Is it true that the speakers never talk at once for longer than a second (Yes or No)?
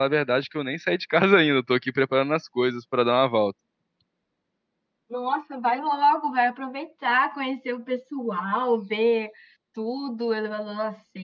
Yes